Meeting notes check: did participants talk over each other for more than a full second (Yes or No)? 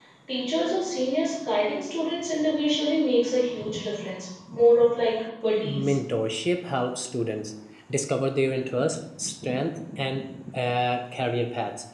No